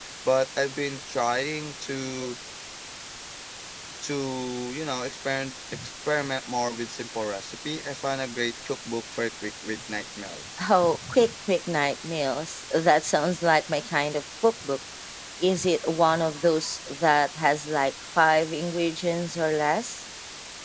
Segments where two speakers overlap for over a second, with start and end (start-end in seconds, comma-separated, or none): none